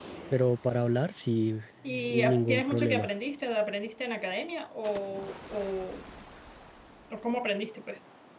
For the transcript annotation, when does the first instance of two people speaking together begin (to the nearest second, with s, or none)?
2 s